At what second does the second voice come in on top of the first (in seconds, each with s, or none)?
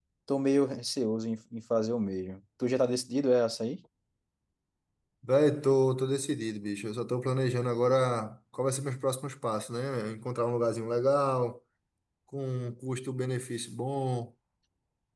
none